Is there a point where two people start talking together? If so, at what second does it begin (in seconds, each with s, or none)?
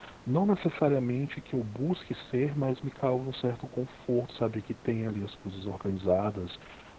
none